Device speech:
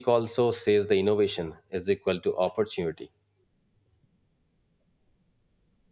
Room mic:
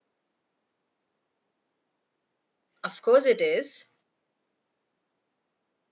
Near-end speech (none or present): present